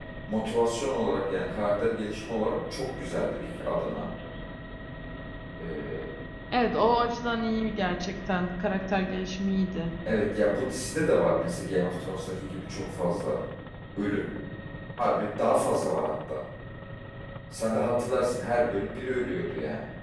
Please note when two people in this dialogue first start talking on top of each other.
none

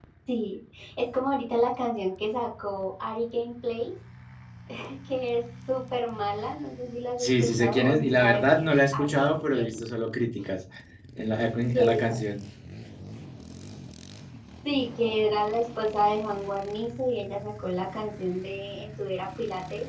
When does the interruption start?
7.2 s

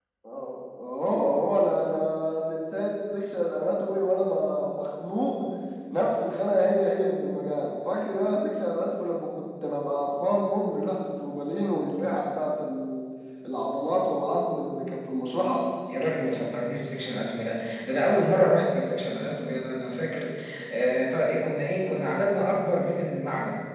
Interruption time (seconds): none

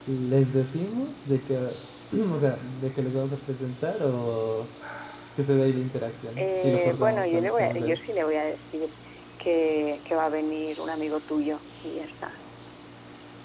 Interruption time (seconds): 6.4 s

